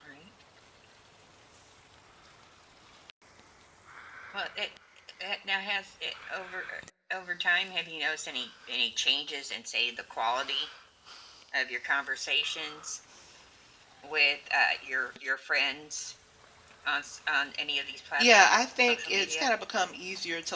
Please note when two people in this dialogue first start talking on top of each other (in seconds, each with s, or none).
18.2 s